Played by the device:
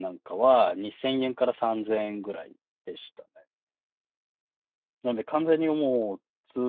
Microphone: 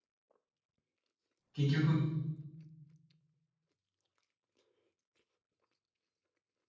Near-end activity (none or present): present